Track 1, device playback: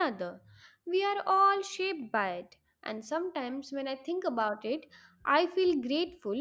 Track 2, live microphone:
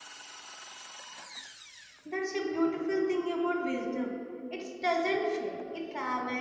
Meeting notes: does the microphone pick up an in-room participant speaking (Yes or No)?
Yes